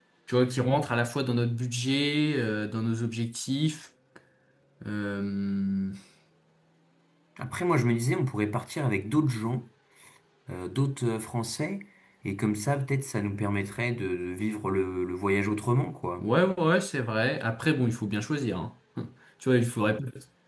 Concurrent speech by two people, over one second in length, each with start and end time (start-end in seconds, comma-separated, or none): none